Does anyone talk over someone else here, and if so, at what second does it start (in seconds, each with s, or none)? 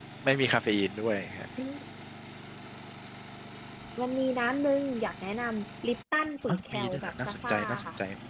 6.5 s